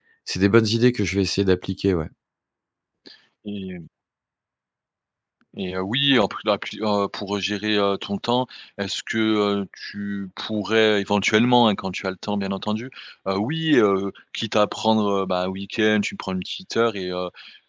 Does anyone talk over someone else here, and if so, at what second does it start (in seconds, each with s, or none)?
none